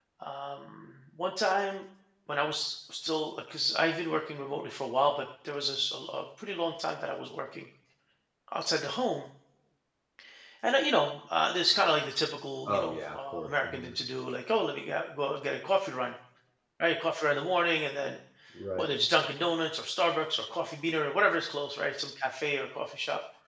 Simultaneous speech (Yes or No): Yes